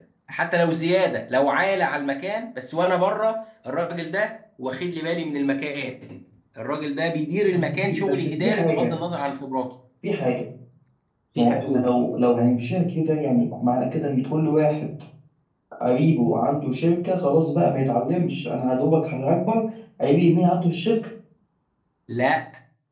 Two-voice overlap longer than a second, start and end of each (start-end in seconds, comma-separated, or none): 7.5-8.9